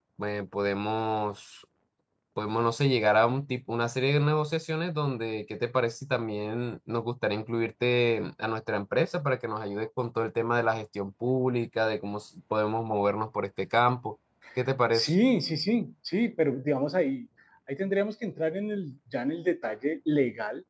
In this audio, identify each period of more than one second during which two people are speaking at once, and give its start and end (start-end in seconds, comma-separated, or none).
none